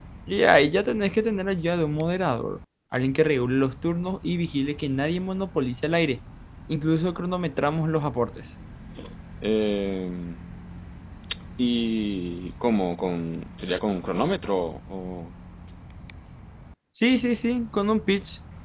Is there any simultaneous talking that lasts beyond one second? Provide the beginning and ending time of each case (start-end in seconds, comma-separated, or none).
none